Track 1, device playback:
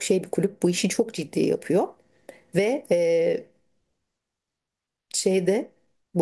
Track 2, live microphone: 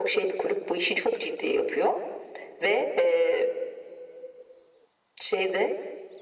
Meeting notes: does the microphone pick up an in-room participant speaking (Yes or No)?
No